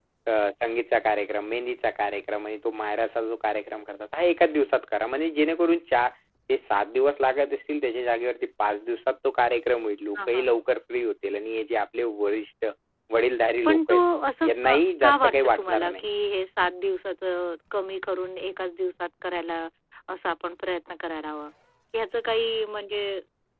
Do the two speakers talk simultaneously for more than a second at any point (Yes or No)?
Yes